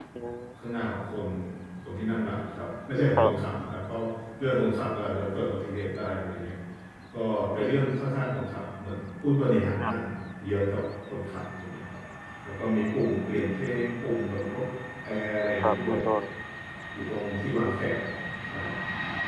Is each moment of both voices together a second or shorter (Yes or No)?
Yes